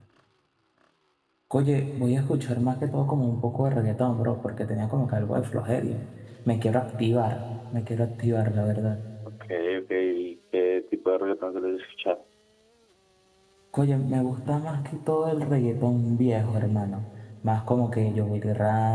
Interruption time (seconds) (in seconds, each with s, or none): none